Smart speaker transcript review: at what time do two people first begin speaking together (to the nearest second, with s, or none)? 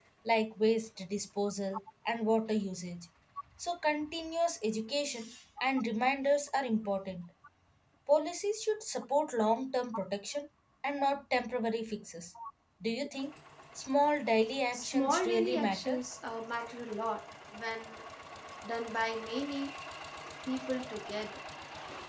15 s